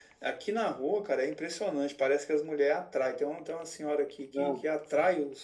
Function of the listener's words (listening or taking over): listening